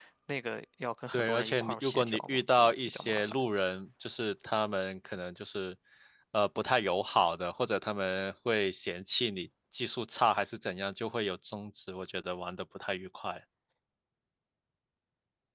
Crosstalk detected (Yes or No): Yes